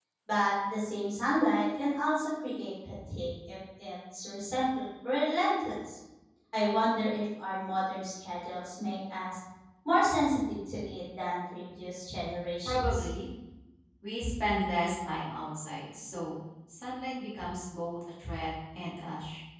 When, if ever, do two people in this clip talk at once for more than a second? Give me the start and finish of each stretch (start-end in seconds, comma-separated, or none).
none